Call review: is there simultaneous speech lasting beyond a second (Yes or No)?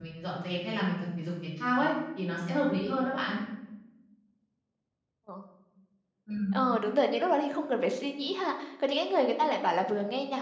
No